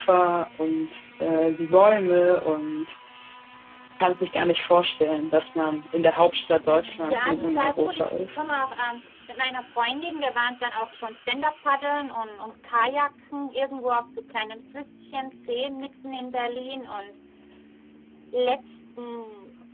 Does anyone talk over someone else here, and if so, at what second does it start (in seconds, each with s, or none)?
6.9 s